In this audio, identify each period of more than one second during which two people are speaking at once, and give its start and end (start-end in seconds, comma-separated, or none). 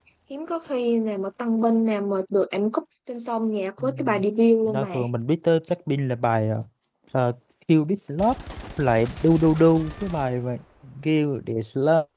none